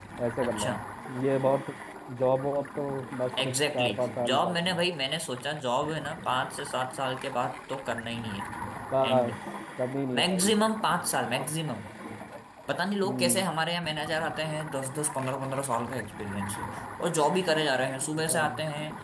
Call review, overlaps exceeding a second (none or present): present